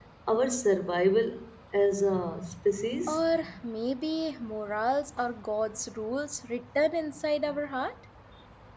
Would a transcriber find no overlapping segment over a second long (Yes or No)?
Yes